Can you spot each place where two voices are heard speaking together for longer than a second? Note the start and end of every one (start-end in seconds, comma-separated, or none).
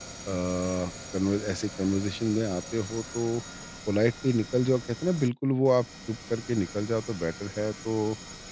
none